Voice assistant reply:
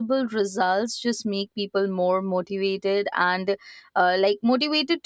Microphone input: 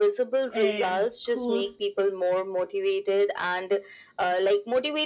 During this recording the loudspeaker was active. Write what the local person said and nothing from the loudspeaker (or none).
um, could